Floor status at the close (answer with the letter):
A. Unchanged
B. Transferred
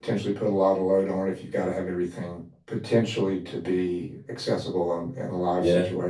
B